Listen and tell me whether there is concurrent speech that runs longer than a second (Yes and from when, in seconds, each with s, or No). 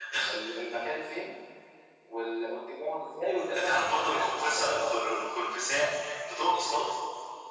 Yes, from 3.5 s